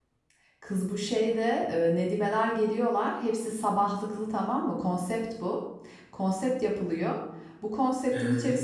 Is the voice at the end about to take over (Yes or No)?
No